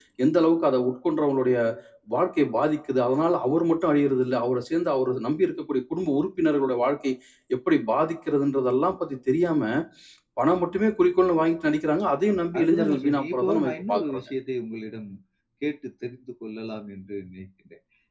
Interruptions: present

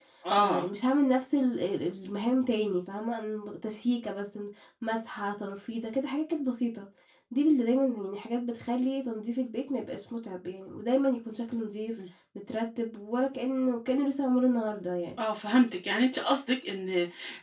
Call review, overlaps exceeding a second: none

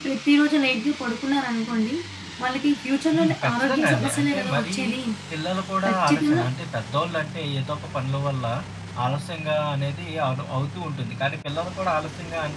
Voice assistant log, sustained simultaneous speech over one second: present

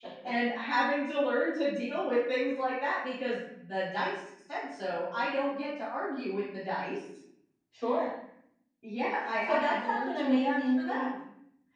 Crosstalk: present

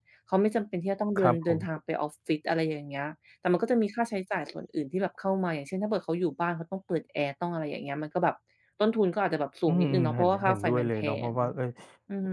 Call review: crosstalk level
present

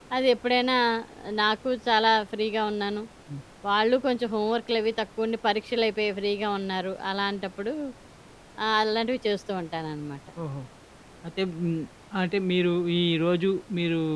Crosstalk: none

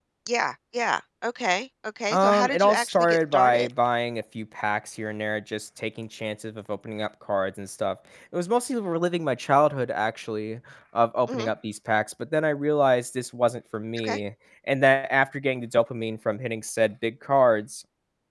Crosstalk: present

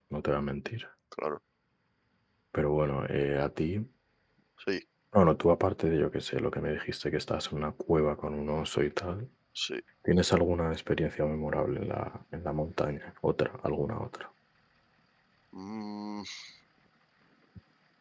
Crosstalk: none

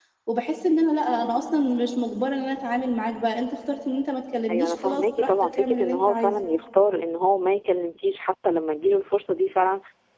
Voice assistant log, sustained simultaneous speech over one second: present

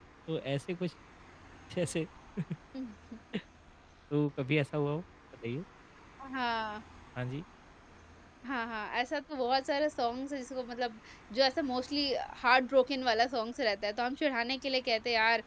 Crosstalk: none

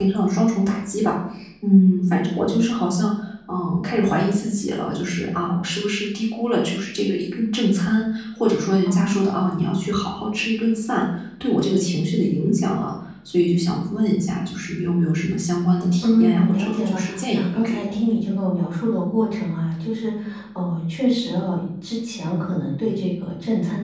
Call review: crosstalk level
present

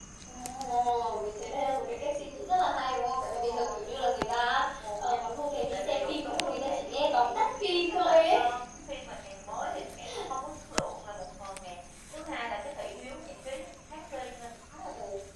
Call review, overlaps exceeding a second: present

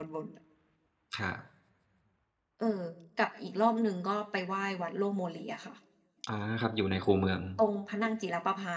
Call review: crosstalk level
none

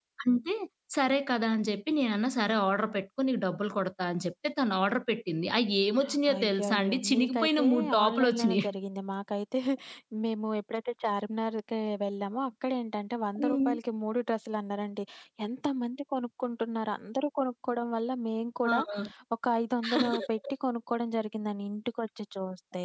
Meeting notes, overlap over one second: present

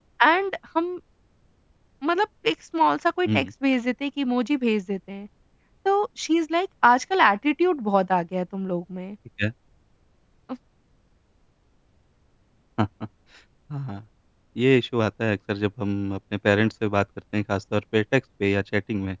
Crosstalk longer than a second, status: none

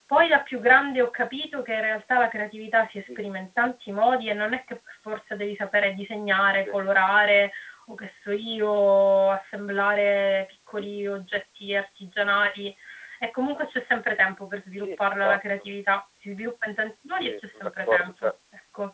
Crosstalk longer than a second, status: present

